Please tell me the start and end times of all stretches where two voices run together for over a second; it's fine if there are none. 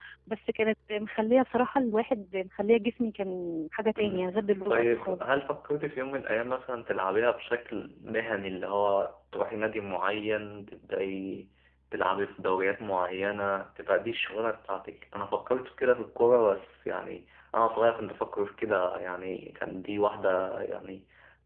4.0-5.4

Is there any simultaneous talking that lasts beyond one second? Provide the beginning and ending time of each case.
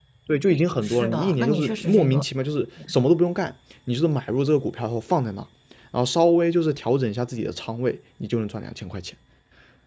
0.8-2.3

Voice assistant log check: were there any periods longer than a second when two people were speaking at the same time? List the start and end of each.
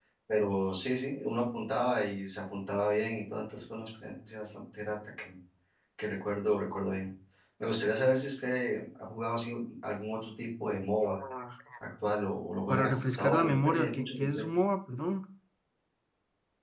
12.7-14.5

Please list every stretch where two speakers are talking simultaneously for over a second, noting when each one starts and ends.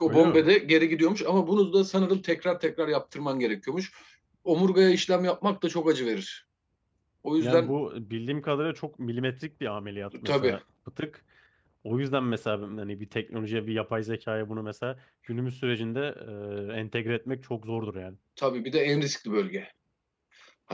none

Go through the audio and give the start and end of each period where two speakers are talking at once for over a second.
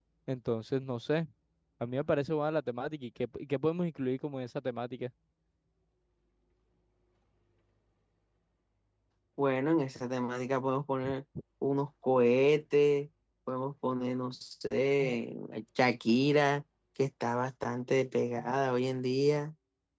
none

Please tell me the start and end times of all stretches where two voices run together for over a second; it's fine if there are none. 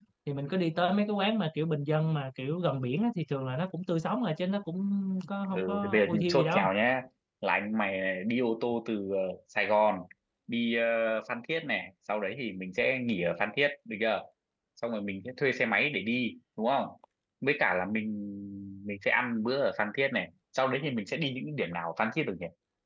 5.5-6.7

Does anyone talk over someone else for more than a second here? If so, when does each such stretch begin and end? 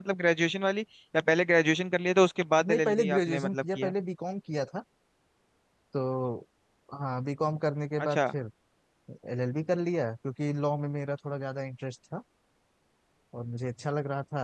2.7-3.9

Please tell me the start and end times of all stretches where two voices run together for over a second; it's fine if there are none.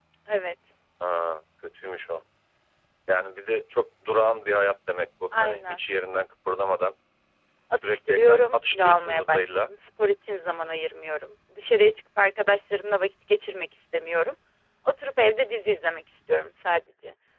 7.8-9.5

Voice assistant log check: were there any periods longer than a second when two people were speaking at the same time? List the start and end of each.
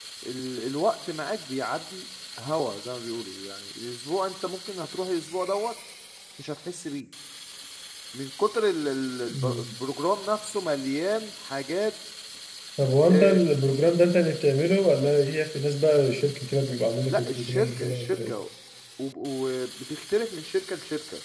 17.1-18.3

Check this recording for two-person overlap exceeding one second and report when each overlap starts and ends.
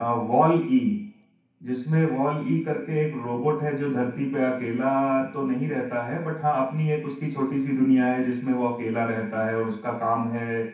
none

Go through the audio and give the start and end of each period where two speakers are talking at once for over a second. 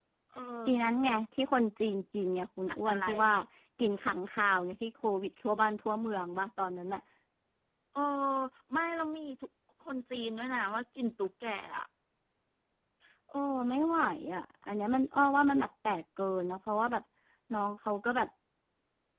none

